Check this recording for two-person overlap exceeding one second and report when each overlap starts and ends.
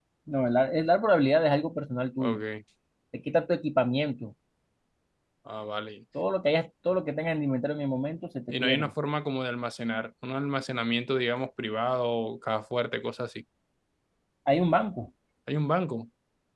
none

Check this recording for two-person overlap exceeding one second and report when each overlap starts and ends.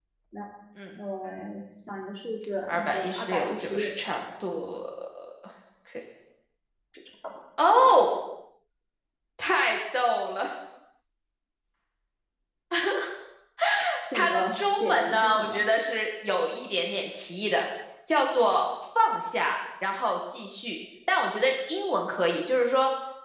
2.7-3.9, 14.1-15.6

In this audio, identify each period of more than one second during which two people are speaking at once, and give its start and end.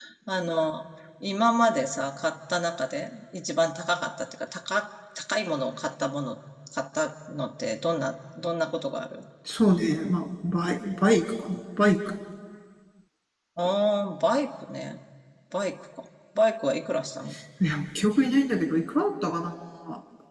none

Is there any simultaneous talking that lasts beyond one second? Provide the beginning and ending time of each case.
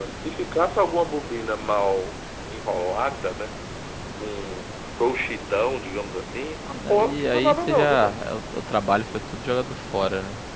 6.9-8.2

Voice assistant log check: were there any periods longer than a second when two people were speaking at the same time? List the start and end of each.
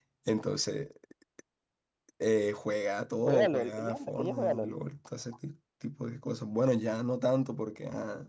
3.2-4.8

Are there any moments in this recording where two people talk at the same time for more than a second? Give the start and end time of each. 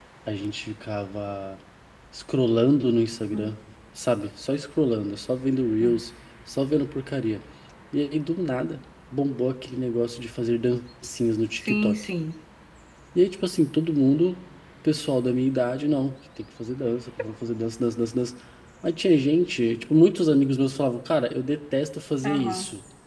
none

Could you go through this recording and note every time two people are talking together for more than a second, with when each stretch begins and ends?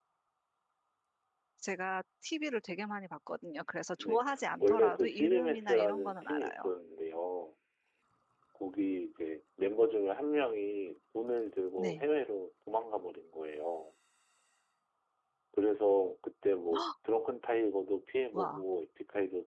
4.6-6.7

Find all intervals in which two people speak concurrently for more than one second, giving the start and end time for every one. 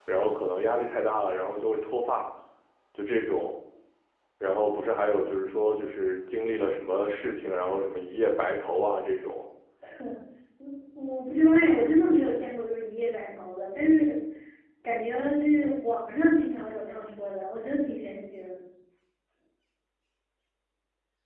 none

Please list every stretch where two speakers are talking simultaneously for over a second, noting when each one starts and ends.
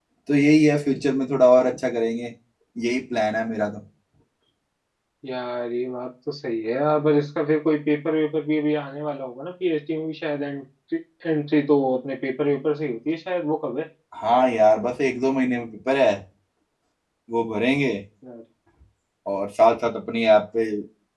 none

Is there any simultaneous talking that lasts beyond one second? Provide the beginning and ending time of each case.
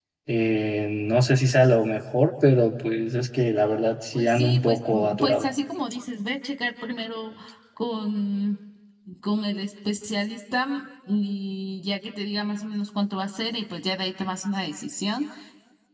4.1-5.4

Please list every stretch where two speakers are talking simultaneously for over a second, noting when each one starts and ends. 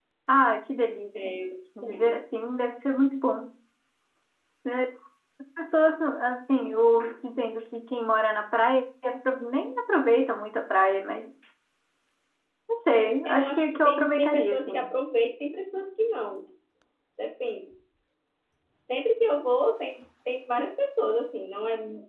13.2-14.9

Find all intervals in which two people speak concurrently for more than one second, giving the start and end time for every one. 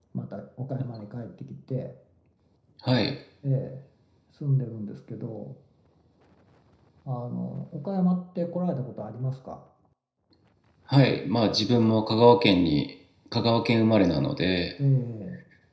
none

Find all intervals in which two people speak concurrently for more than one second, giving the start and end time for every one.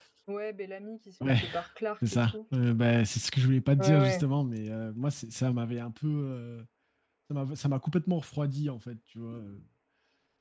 none

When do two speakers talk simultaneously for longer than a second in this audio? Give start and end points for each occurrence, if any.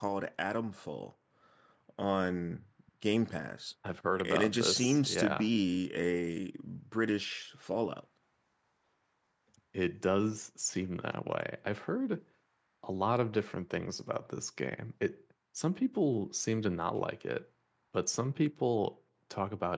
4.2-5.5

